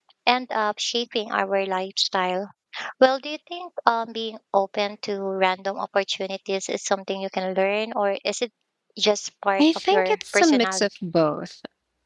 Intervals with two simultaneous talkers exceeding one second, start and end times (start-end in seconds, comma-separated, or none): 9.6-10.8